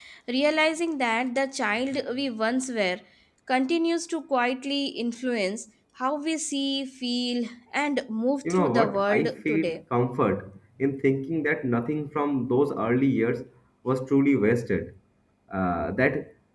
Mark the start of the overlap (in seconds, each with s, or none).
8.4 s